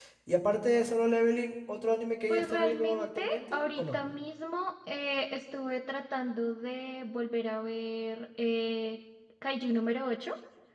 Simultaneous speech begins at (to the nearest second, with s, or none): 2 s